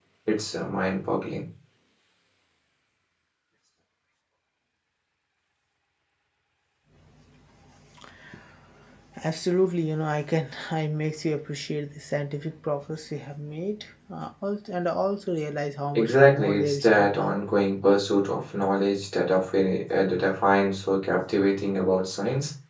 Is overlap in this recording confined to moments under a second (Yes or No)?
No